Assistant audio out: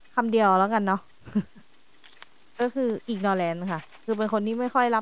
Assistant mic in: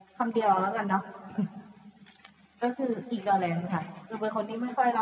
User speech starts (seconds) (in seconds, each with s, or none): none